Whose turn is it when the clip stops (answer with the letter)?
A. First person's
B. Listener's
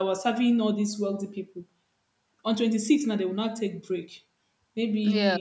A